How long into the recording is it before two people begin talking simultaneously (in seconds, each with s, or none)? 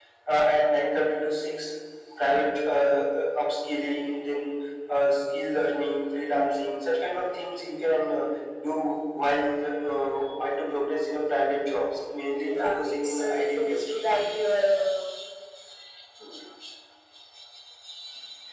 12.5 s